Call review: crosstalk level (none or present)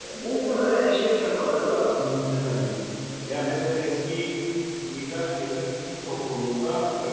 none